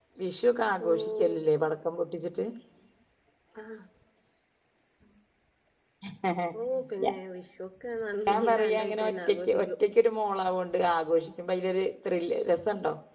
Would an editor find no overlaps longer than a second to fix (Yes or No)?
No